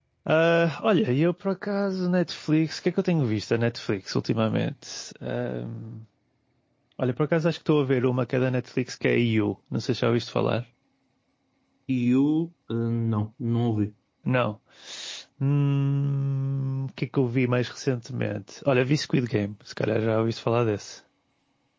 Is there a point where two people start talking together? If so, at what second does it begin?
none

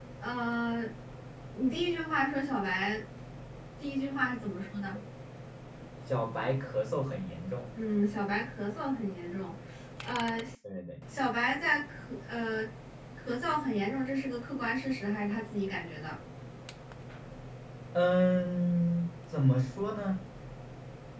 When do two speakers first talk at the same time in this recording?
none

